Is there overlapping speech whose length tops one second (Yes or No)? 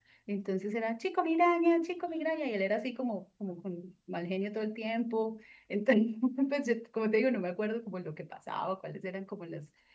No